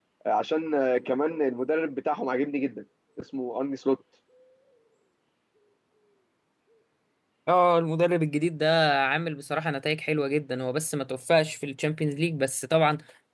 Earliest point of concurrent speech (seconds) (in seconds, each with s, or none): none